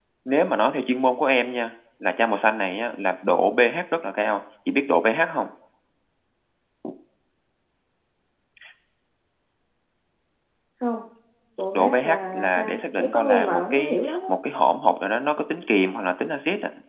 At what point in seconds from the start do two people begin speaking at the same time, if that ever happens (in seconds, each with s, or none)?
11.7 s